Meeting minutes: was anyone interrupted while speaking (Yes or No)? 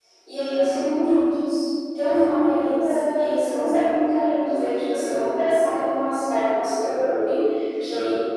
Yes